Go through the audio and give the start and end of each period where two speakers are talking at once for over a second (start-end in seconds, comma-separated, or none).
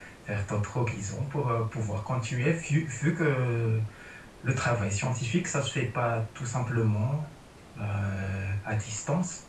none